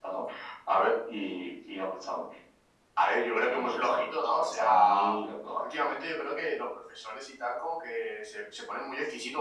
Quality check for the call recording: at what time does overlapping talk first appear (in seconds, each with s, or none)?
3.5 s